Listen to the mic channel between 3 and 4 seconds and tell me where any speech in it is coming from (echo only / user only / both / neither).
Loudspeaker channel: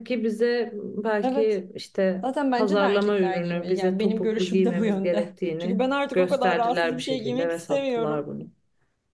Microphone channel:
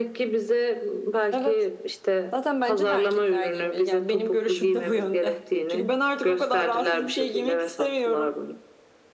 echo only